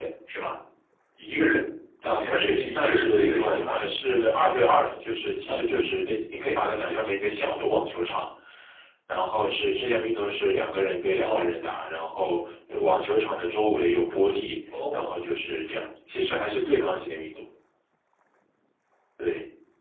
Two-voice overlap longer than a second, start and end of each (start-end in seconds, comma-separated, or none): 2.0-3.8